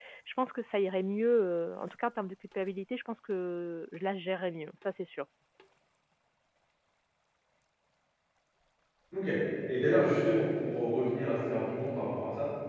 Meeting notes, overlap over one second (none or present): none